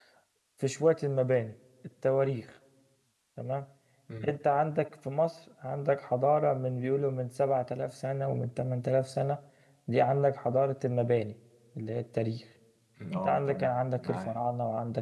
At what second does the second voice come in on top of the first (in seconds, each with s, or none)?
13.1 s